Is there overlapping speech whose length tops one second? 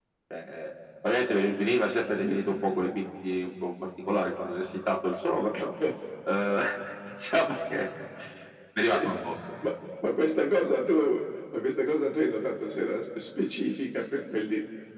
No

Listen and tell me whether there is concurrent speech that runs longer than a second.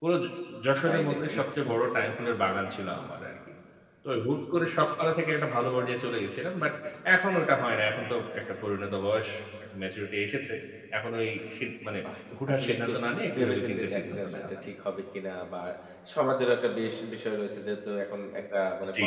Yes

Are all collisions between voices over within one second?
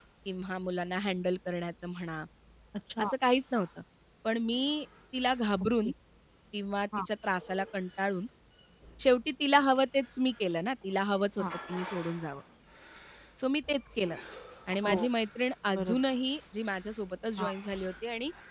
Yes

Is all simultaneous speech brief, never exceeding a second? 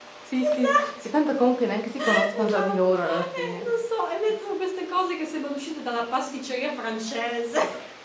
No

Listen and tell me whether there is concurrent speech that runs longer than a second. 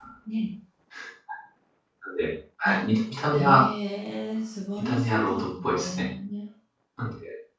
Yes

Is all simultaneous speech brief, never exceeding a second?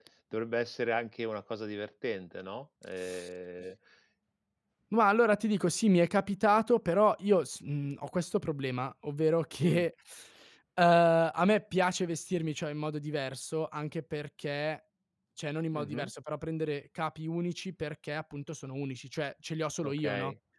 Yes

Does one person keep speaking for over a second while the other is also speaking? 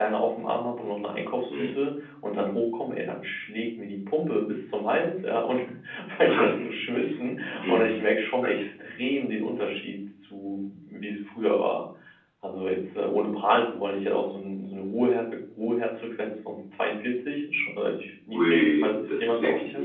Yes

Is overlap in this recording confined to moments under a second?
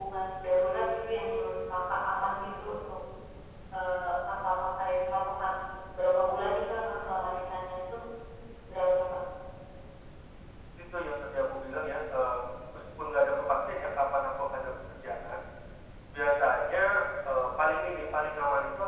Yes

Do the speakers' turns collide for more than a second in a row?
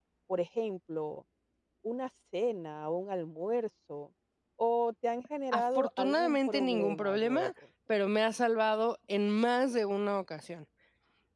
Yes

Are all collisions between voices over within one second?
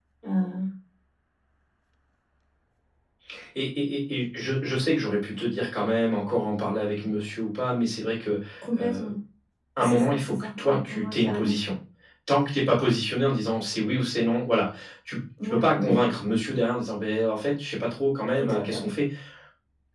No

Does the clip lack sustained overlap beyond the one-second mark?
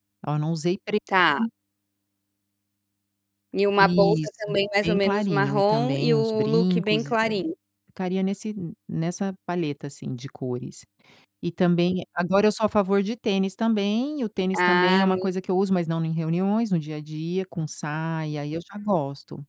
No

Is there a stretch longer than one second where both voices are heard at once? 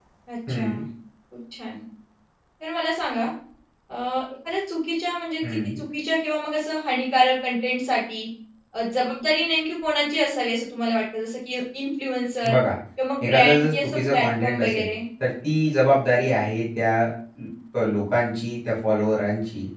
Yes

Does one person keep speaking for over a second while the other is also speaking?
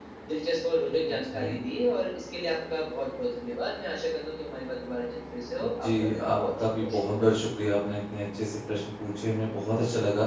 Yes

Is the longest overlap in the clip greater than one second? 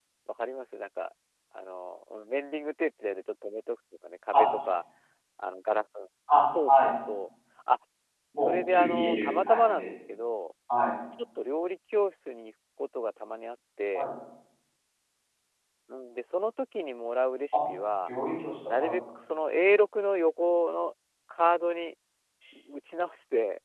Yes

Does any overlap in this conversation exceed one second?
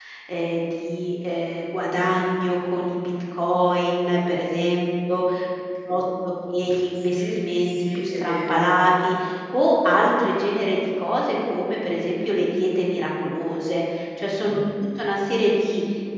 Yes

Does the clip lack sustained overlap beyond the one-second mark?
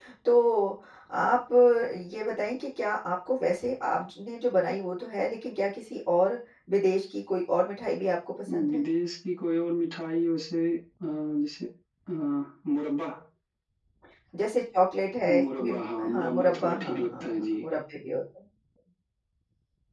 No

